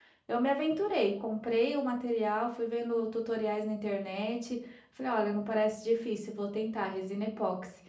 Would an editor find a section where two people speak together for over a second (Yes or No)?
No